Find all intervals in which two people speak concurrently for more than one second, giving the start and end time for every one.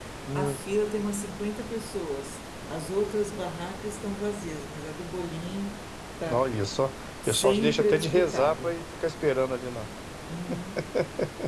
7.2-8.7

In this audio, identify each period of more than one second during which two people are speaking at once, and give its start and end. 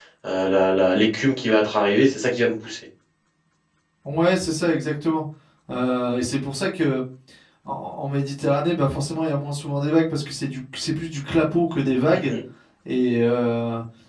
none

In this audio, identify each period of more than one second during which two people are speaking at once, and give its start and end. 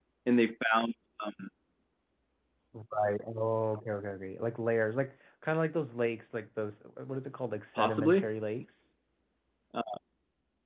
none

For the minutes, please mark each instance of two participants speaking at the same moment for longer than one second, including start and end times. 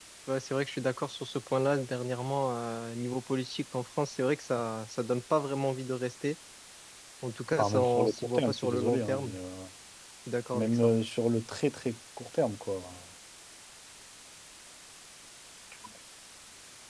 7.6-9.4

